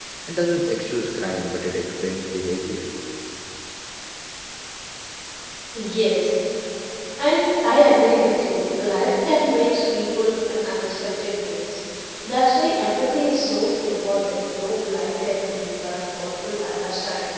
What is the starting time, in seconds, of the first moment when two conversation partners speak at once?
none

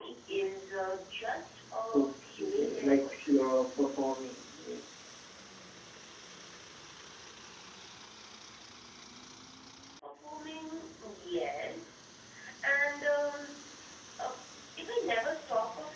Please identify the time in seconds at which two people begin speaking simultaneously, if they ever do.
1.9 s

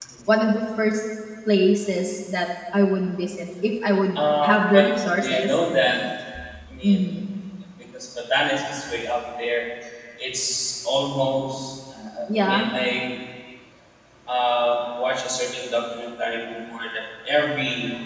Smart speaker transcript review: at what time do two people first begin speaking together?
4.2 s

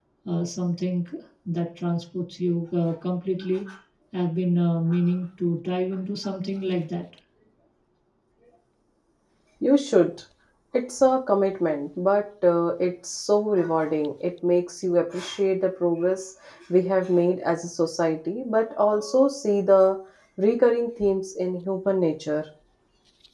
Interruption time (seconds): none

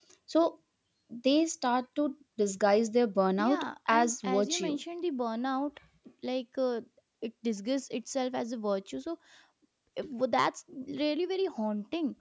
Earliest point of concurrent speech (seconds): 3.4 s

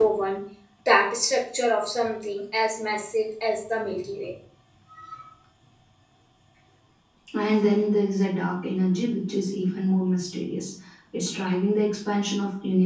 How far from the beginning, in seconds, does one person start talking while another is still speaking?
none

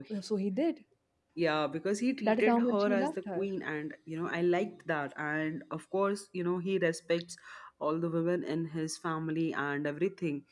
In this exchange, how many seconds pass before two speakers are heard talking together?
2.2 s

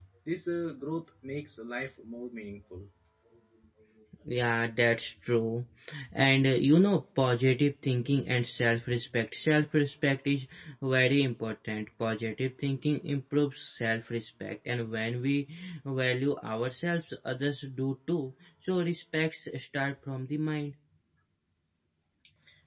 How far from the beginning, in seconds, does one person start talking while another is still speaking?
none

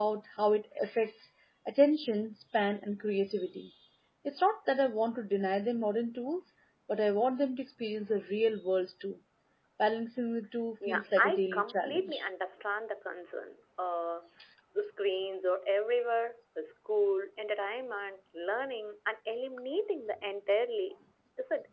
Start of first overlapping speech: 10.8 s

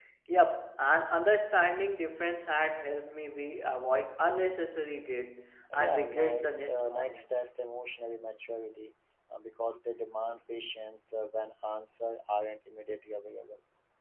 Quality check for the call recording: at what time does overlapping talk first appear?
5.7 s

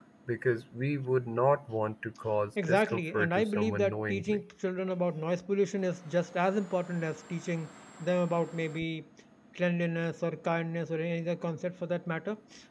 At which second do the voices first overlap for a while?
2.6 s

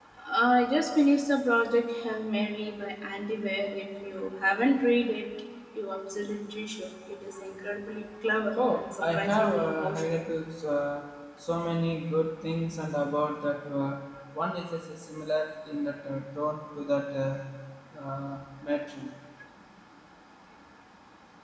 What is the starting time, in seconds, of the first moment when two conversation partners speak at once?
8.6 s

